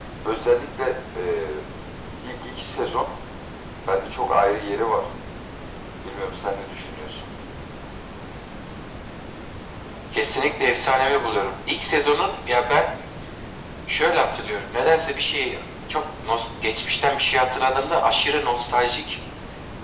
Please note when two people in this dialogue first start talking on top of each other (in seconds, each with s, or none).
none